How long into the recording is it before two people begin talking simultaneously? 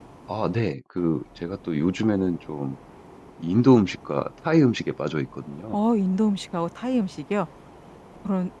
none

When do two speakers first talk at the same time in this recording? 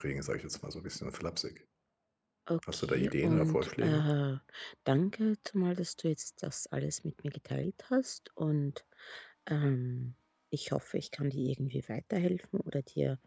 3 s

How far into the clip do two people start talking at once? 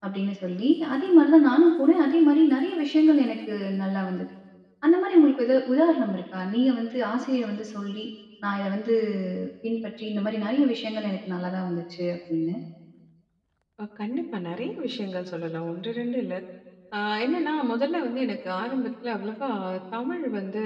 none

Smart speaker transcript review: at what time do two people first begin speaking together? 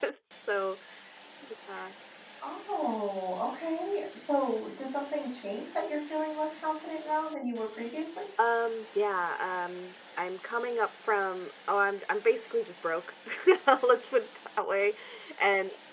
none

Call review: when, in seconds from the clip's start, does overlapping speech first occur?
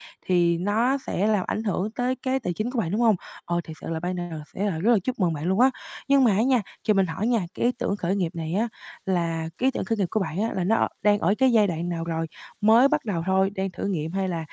none

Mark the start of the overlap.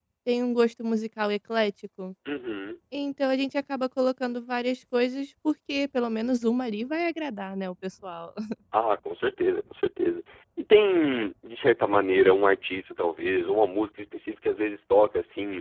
none

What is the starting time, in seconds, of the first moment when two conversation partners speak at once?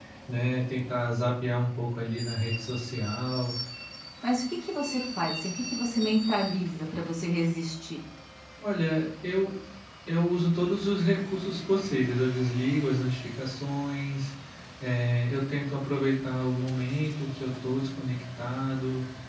none

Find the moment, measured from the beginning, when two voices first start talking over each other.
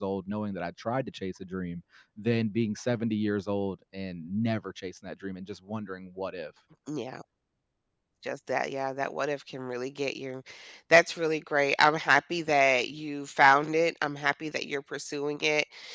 none

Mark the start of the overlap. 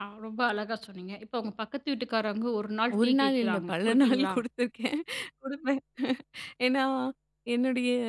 3 s

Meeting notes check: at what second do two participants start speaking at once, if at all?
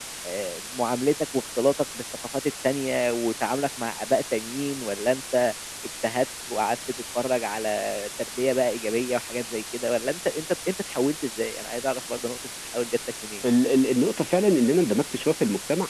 none

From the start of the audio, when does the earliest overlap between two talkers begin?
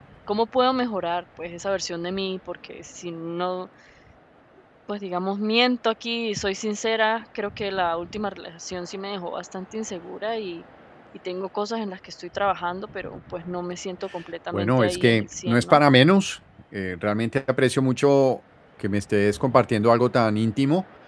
15 s

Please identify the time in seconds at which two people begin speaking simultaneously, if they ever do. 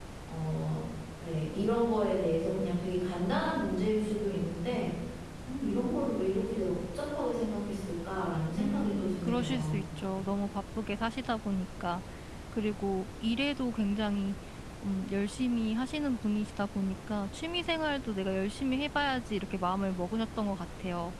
8 s

